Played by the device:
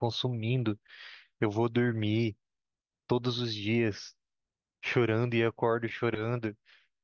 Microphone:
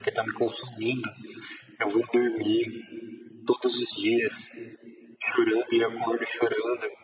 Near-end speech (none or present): none